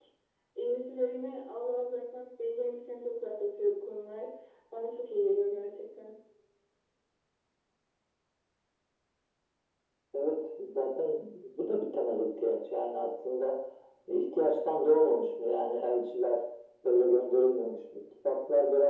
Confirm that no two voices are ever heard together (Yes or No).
Yes